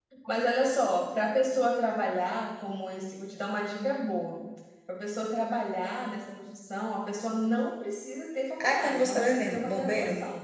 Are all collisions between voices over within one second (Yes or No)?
No